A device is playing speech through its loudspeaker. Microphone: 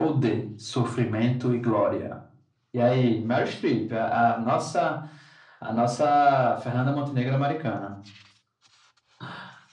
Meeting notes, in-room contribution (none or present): none